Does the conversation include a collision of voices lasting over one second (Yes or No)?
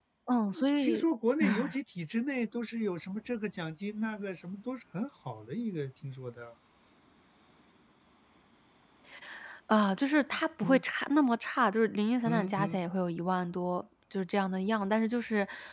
No